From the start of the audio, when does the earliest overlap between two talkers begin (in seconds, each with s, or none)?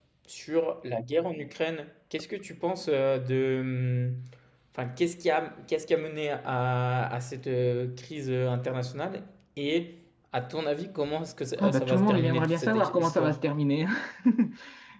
11.6 s